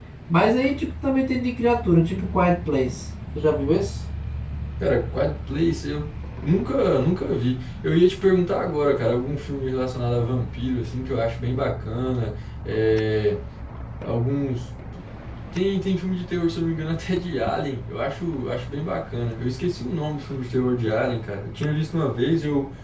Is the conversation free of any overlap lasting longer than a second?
Yes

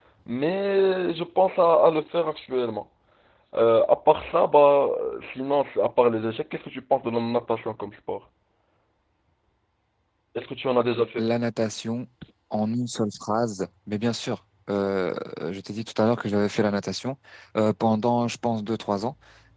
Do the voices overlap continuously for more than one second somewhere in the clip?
No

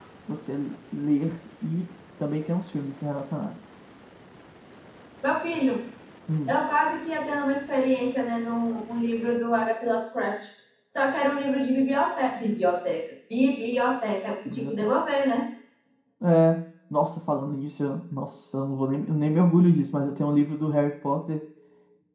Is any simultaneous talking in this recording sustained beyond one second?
No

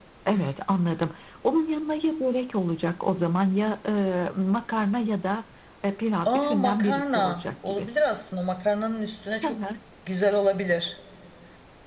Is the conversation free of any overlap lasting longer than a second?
No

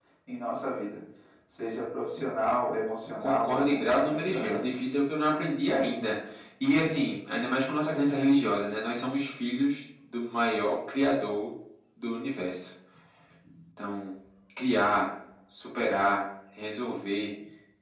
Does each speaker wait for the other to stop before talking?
No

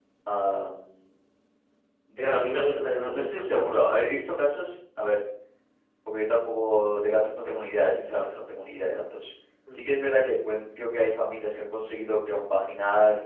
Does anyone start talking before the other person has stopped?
Yes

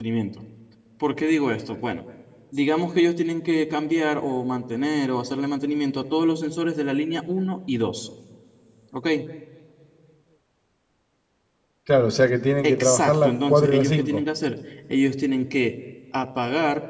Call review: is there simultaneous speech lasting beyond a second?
Yes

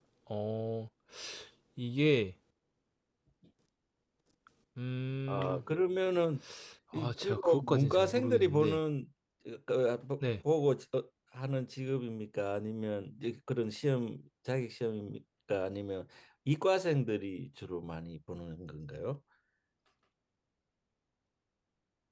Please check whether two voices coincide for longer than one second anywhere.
Yes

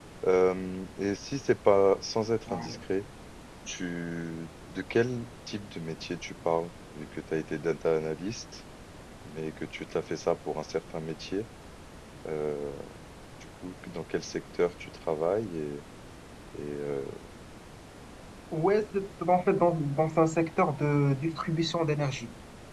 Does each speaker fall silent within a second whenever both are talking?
Yes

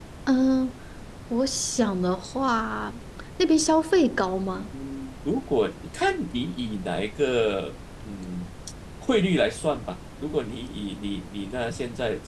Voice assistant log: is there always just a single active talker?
Yes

